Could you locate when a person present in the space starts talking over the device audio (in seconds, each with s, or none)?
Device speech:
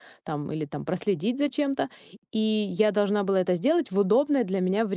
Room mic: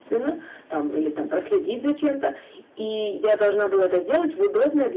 none